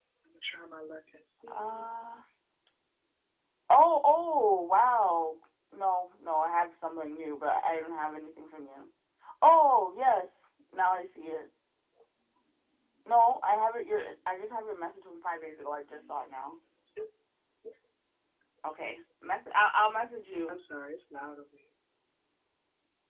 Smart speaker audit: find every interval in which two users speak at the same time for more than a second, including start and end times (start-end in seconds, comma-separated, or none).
none